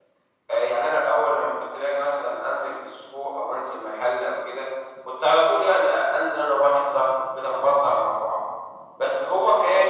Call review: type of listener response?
taking over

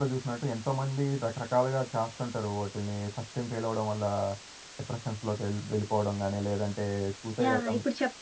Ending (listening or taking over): taking over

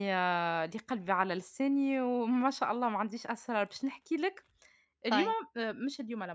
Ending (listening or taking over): listening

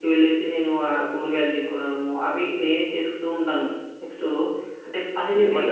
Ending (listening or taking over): taking over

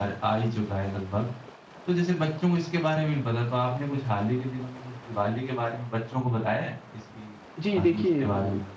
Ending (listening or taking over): taking over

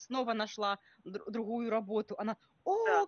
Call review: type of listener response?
listening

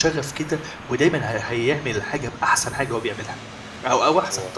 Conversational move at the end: listening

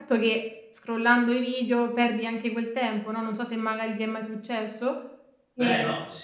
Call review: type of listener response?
taking over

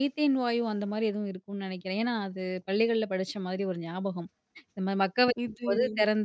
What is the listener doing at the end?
listening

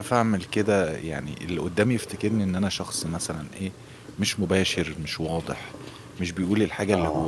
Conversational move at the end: listening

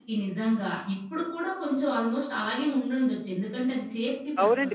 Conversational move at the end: taking over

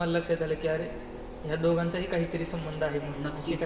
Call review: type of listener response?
taking over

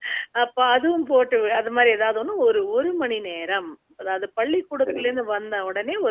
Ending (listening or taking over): listening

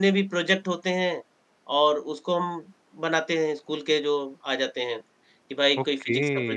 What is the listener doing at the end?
taking over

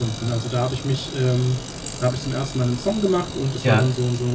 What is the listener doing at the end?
listening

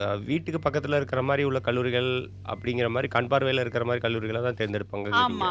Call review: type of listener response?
taking over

